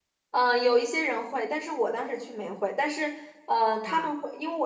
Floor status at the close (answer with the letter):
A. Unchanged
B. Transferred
A